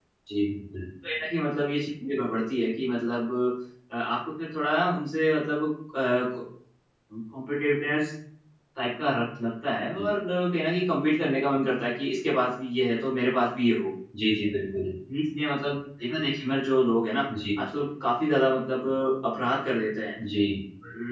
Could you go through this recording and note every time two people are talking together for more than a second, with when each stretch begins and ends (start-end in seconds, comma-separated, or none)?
none